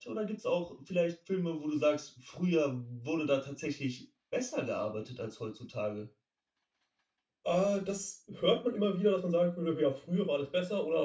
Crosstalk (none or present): none